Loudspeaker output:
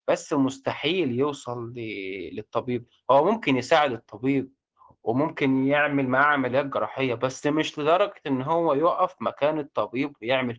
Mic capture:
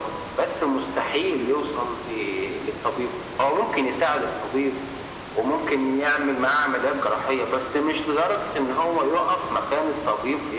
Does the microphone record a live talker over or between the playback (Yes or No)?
No